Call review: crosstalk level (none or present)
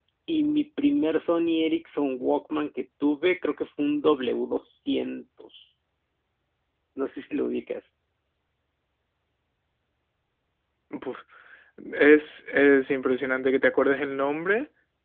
none